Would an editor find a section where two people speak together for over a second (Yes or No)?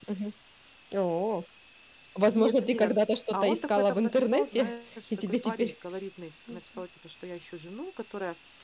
Yes